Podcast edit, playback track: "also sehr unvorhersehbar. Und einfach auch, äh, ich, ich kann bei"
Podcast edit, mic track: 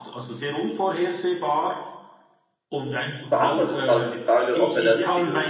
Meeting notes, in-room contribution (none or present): present